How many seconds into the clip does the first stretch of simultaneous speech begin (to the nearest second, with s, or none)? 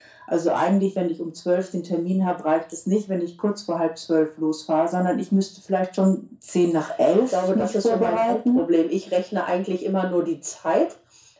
7 s